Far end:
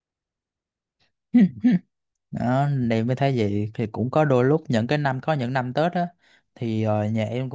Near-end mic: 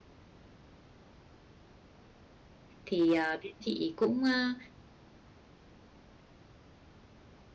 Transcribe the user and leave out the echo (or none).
thì à, bên chị cũng à,